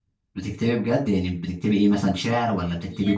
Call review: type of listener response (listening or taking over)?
taking over